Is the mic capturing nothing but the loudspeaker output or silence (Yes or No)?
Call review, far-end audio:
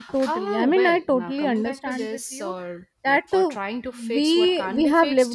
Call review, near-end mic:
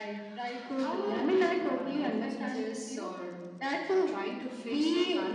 Yes